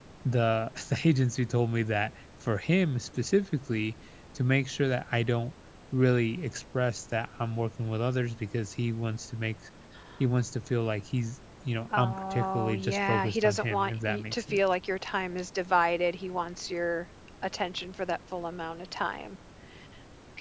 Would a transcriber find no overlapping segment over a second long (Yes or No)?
No